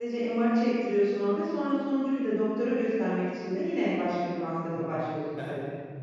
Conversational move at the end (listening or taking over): taking over